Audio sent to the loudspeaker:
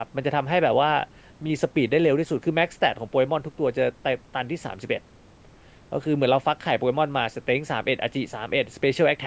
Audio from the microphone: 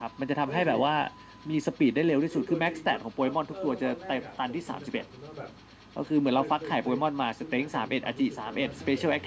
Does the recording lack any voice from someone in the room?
No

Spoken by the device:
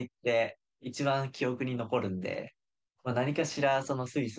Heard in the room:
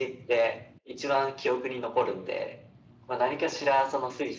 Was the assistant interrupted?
No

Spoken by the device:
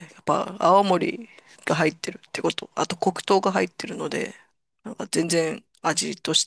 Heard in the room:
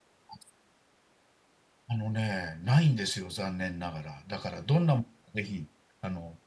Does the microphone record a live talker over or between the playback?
Yes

